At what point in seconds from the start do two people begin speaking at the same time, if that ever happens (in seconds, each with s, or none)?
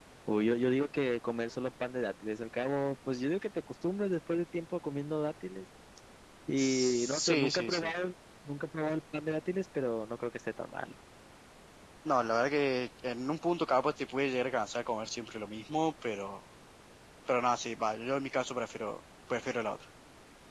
6.6 s